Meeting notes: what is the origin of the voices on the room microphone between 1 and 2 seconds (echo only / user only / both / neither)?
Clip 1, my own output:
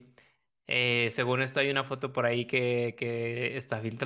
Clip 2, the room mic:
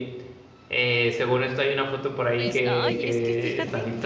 echo only